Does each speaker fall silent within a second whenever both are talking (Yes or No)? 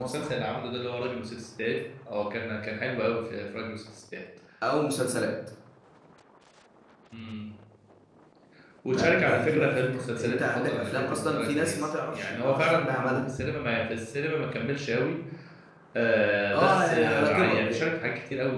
No